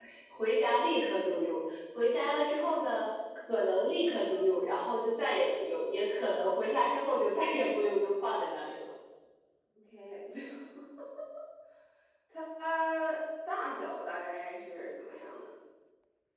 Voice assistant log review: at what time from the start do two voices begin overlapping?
none

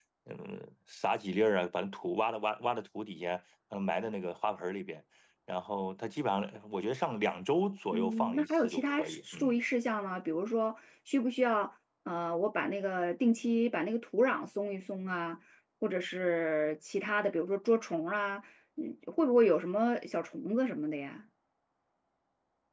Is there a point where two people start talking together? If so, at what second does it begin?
8 s

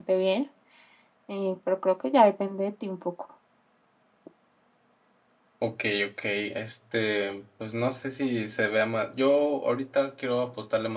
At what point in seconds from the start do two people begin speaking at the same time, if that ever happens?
none

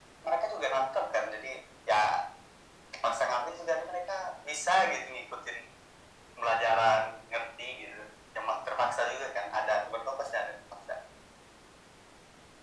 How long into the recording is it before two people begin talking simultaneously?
none

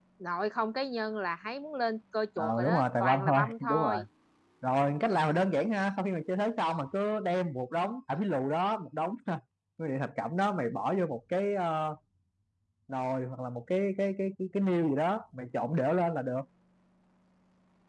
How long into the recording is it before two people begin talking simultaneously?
2 s

